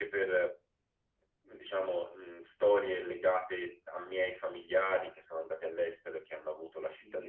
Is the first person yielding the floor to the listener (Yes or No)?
Yes